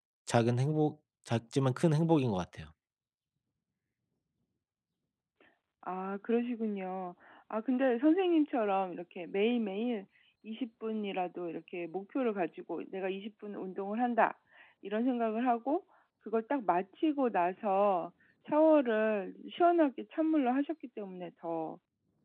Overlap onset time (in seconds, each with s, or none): none